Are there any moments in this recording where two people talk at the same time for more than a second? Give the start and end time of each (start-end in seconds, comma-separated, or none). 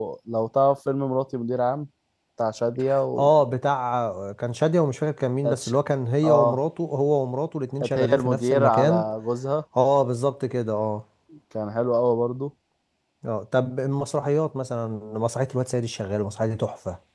7.8-9.0